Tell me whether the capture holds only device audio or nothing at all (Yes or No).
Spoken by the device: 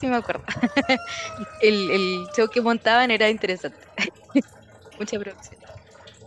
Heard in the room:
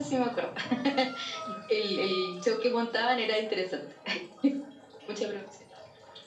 Yes